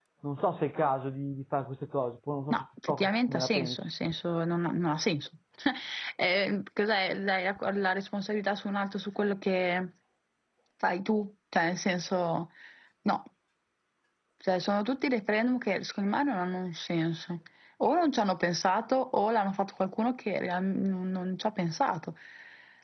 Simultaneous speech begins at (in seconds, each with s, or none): 2.5 s